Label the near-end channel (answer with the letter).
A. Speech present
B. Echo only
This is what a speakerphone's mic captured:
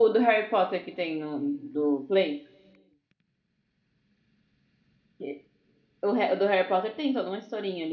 A